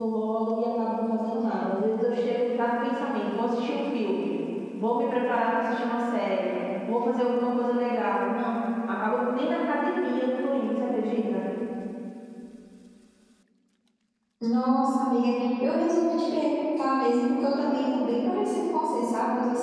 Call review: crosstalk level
none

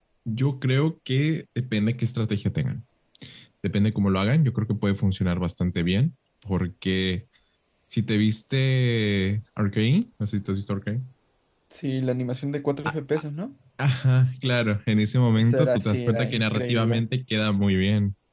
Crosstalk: present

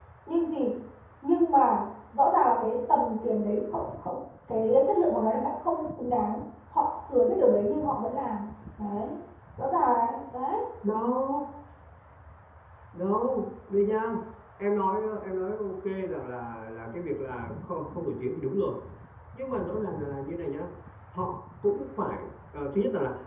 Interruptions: none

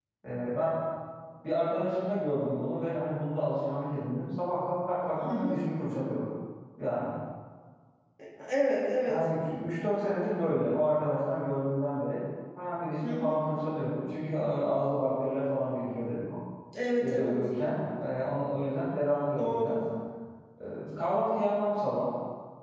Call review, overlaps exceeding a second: none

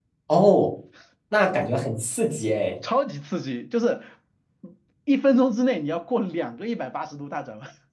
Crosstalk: none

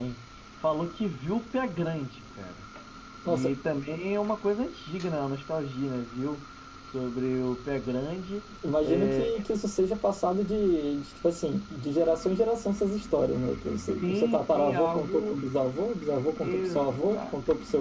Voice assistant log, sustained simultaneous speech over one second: present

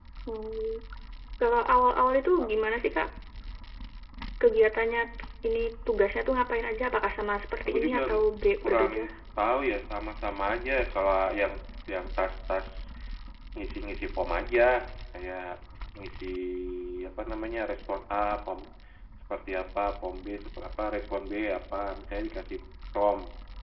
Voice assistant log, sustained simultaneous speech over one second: none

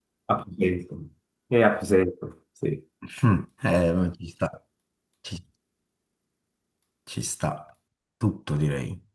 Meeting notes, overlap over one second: none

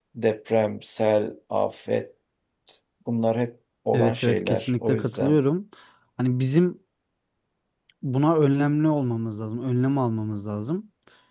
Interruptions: present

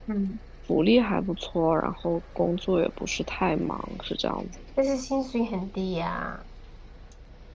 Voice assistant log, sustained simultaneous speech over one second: none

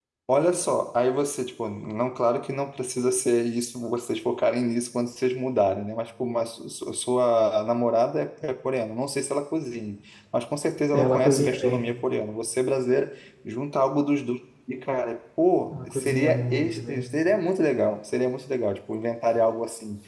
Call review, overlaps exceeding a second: present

